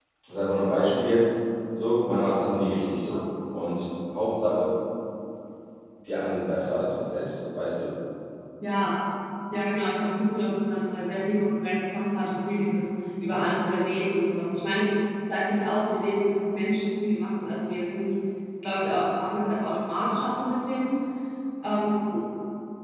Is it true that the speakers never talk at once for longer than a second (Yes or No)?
Yes